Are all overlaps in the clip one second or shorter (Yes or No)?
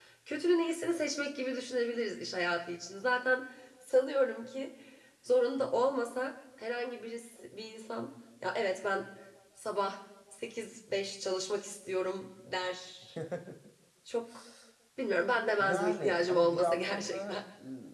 No